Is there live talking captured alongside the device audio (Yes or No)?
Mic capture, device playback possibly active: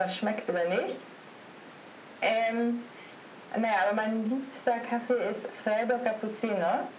No